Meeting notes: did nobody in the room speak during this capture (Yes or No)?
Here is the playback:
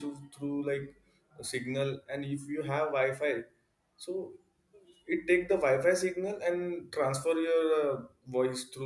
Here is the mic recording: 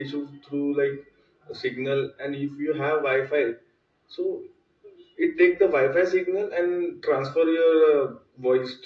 Yes